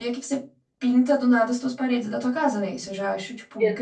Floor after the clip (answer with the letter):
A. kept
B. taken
B